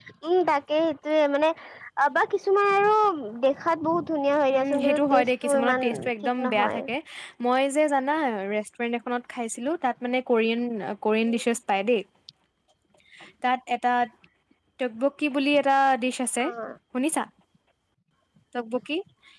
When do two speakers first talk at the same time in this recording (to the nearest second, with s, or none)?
5 s